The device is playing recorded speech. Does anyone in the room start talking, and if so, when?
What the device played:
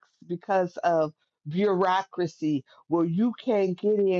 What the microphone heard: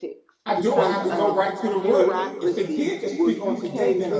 0.4 s

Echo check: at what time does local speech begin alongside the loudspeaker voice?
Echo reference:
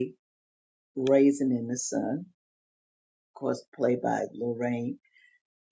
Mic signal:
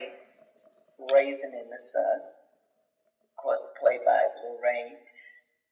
none

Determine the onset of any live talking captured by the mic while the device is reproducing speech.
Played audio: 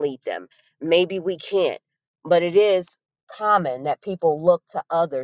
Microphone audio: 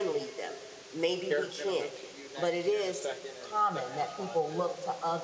1.3 s

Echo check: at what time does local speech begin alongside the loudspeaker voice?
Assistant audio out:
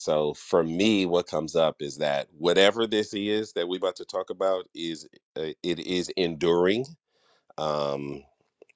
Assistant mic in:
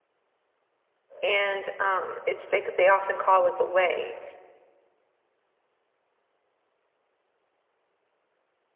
1.2 s

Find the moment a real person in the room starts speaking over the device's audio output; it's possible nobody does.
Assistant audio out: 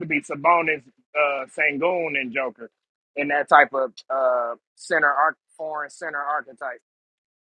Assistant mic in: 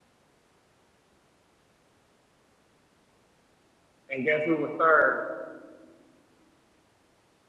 4.1 s

